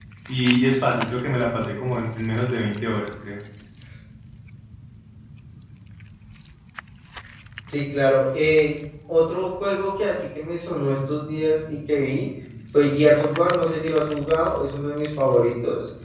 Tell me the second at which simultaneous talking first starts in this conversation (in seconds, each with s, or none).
none